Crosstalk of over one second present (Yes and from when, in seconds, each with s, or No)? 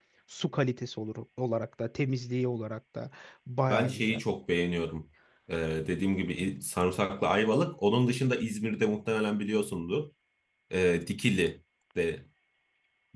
No